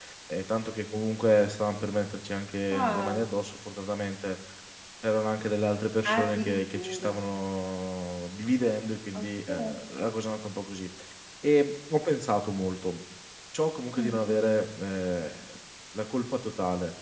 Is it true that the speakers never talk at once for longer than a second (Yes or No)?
No